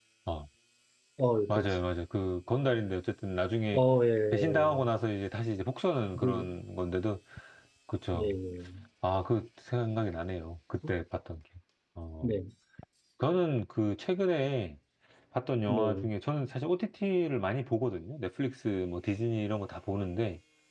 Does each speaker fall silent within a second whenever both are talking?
Yes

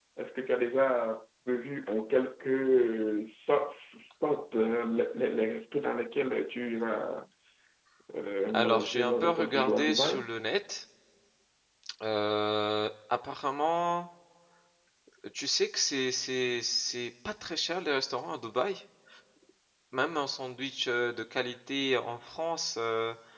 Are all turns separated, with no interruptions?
No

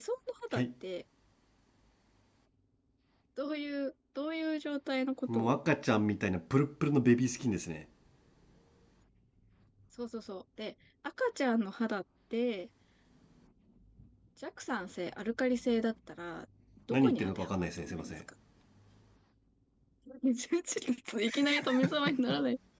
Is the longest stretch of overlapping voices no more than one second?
No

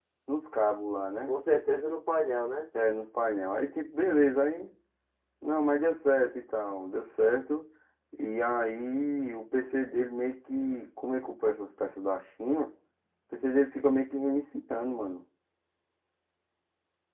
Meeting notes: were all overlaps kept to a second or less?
Yes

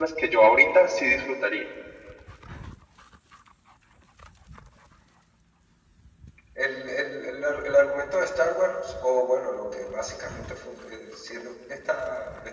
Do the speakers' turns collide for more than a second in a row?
No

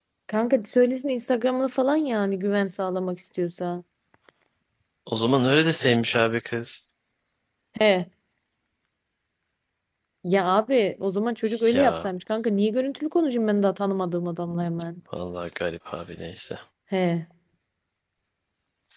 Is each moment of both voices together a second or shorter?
Yes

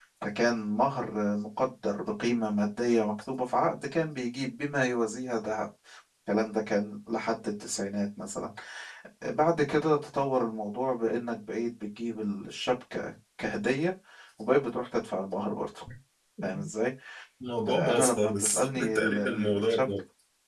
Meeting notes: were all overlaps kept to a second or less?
No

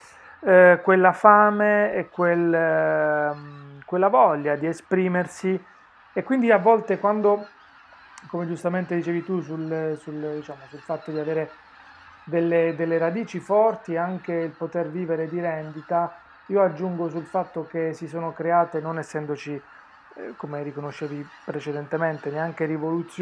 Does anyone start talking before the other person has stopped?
No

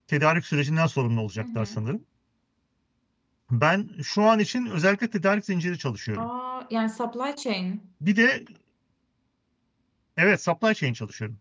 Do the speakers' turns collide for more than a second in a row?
No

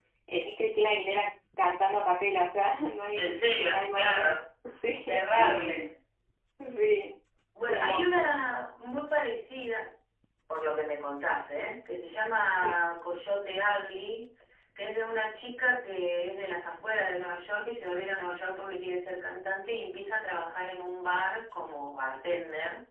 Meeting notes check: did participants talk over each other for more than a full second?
Yes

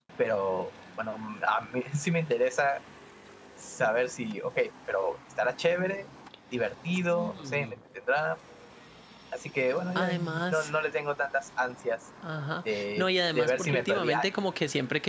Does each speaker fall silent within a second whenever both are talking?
No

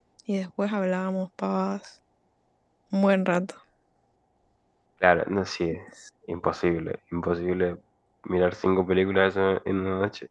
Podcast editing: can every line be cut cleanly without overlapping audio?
Yes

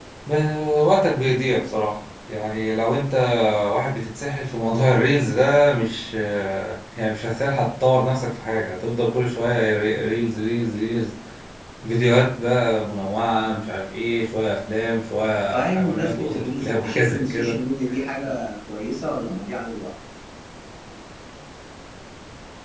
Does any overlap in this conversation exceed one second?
Yes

